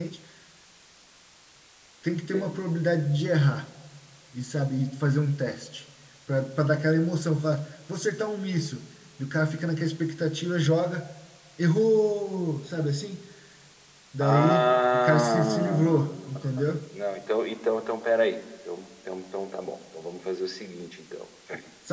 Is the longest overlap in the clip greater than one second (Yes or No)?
Yes